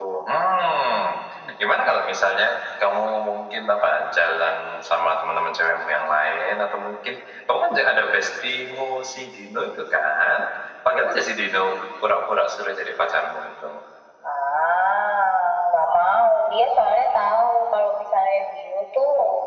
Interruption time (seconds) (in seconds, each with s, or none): none